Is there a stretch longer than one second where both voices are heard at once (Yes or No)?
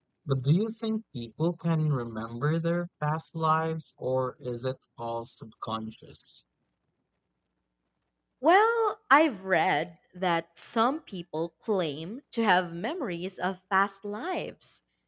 No